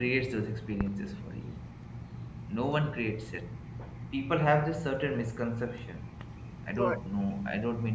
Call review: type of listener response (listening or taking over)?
listening